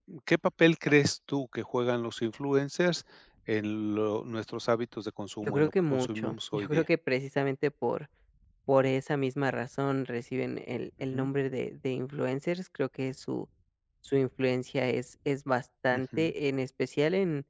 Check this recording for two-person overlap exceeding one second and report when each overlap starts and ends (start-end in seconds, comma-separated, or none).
5.4-6.8